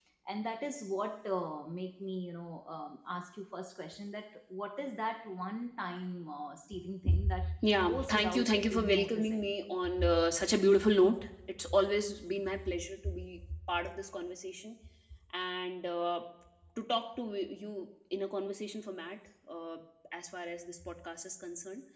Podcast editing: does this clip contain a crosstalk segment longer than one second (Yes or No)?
Yes